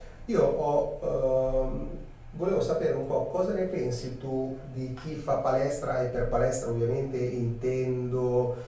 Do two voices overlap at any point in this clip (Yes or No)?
No